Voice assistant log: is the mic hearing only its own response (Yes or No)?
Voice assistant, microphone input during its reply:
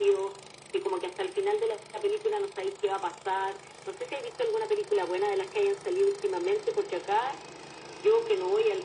Yes